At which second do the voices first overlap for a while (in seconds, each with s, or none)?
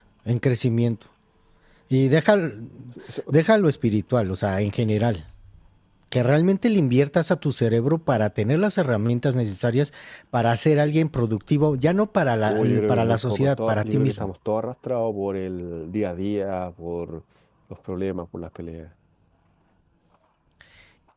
12.5 s